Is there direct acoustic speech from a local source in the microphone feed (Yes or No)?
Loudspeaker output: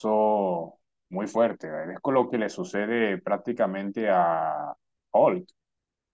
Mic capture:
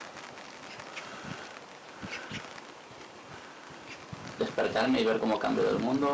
Yes